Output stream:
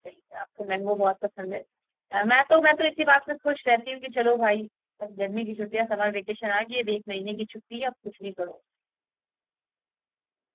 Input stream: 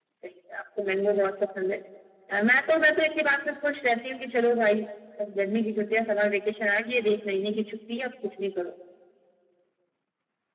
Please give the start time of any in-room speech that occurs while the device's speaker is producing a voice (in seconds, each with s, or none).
none